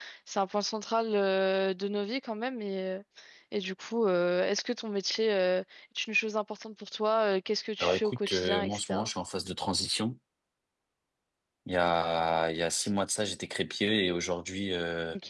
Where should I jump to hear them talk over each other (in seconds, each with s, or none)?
7.8 s